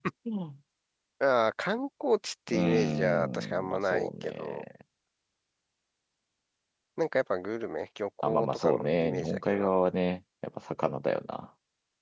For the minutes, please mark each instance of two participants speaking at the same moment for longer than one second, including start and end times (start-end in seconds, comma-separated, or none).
2.5-4.6, 8.2-9.7